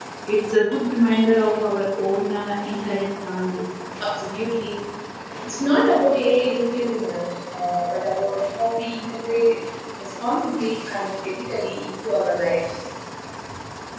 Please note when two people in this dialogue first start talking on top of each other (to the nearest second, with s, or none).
none